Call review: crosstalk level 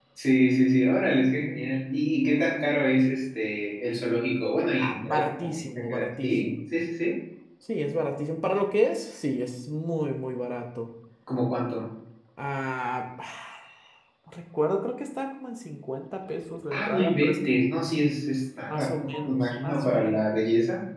present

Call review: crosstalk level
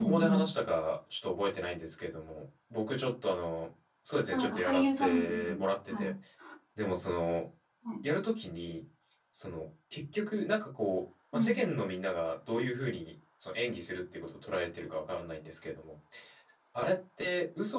present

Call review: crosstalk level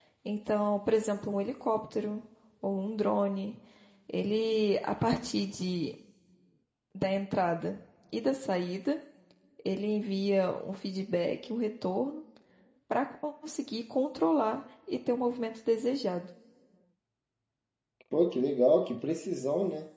none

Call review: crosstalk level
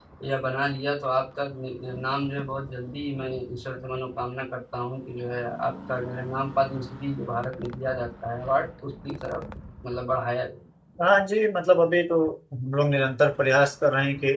none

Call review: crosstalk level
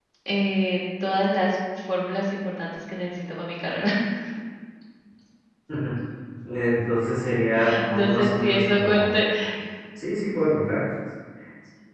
present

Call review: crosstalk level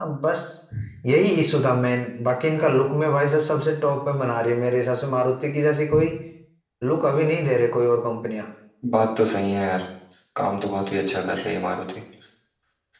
none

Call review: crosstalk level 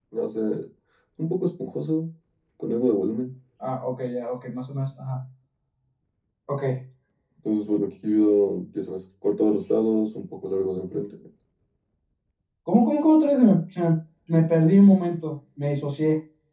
none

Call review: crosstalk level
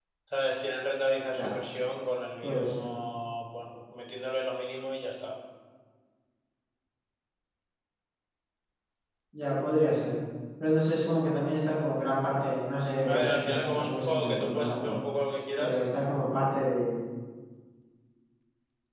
present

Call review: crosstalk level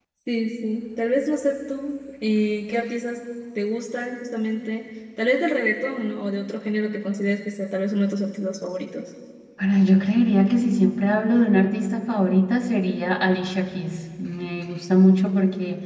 none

